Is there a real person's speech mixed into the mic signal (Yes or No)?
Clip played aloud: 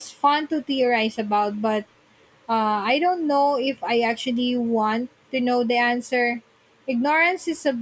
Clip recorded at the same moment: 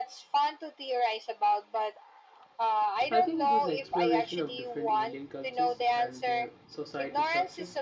Yes